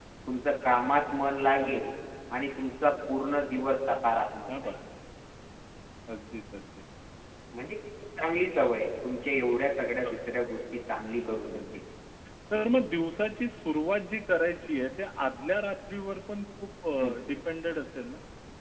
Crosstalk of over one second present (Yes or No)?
No